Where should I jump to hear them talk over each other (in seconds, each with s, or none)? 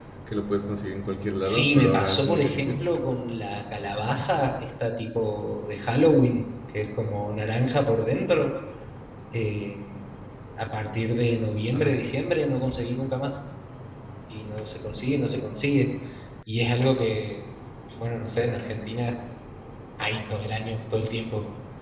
1.4 s